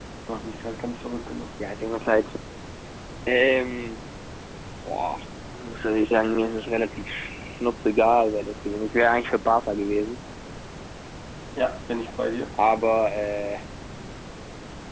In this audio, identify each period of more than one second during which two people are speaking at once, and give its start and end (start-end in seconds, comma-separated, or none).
none